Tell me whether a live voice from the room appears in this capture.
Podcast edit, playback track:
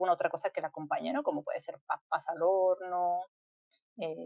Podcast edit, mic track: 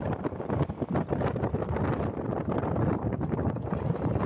No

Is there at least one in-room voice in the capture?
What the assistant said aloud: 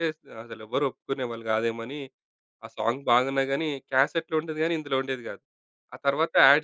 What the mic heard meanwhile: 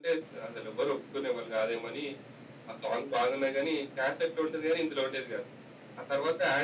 No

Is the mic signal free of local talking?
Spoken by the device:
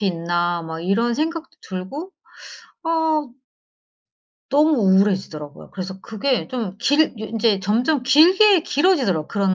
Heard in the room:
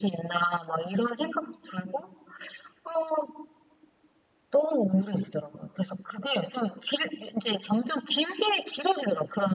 Yes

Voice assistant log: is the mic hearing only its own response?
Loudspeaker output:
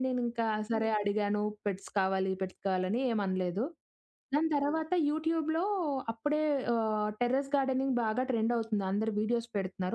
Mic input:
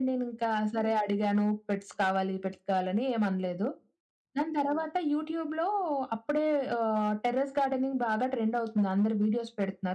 Yes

